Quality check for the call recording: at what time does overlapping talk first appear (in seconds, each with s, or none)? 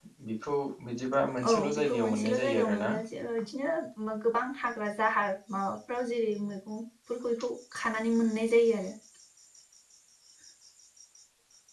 1.4 s